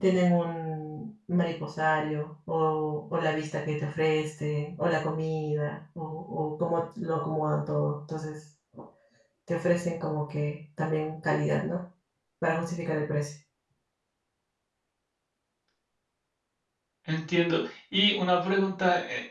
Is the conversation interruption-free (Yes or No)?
Yes